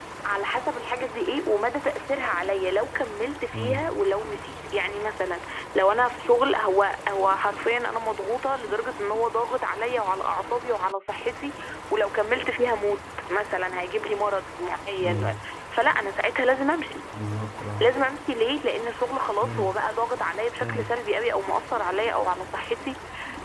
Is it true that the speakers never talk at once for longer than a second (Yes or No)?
Yes